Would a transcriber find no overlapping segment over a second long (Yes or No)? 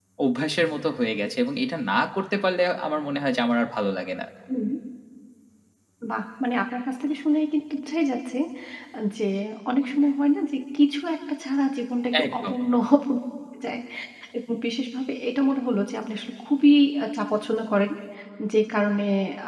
Yes